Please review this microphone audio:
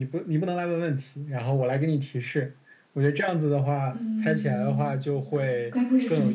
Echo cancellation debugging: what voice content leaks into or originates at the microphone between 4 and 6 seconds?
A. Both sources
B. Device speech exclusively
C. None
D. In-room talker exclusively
A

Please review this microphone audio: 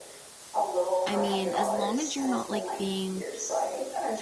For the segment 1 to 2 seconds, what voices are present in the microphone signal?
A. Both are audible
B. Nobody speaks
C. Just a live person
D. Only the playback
A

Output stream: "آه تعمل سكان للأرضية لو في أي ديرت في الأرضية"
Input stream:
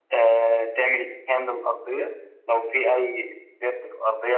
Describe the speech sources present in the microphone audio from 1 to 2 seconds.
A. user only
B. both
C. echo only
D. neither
C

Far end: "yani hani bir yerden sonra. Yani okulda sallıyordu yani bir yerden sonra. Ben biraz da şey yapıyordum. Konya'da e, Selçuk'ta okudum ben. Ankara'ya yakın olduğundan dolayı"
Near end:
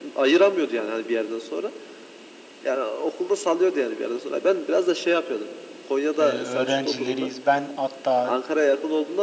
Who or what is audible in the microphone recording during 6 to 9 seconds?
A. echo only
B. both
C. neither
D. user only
B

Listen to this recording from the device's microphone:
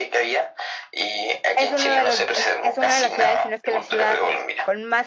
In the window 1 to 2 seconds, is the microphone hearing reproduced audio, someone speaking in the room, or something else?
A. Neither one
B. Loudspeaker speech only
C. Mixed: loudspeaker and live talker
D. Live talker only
C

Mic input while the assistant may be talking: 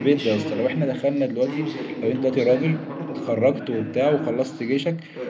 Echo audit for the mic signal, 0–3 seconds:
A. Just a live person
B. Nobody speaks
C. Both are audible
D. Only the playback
C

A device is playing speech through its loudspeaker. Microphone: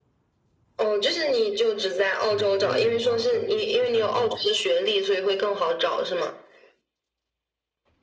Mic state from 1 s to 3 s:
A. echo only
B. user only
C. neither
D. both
D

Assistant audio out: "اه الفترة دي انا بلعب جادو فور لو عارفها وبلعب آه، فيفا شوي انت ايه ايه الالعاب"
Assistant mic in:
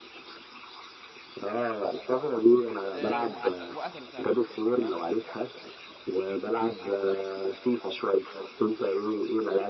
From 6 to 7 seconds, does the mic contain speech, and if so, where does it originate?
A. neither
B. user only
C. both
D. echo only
D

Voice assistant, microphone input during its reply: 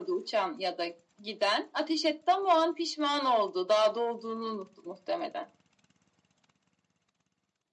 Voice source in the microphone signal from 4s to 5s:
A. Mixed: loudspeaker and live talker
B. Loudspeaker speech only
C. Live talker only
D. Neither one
B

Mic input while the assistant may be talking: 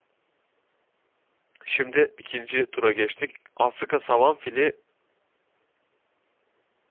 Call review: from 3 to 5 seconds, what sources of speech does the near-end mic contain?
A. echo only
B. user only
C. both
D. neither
B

